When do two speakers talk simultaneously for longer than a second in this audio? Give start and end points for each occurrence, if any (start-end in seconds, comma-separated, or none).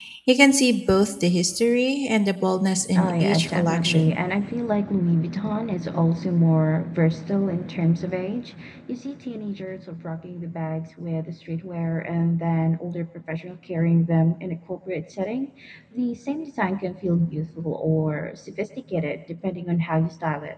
3.0-4.2